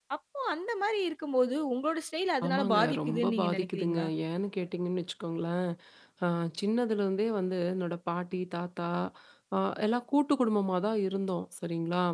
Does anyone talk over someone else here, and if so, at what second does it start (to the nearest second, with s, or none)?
2 s